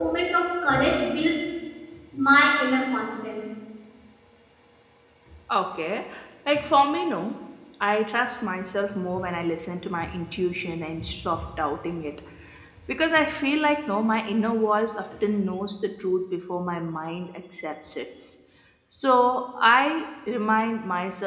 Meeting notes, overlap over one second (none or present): none